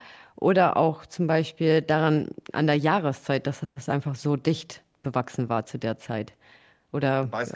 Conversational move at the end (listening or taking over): taking over